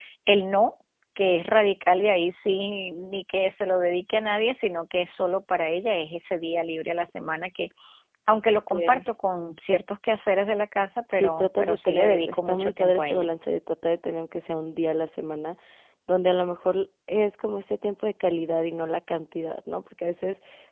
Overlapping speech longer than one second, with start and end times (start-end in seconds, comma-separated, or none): 11.1-13.3